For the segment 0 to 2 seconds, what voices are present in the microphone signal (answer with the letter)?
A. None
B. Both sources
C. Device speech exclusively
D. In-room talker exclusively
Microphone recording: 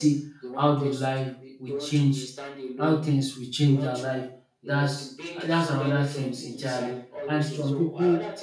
B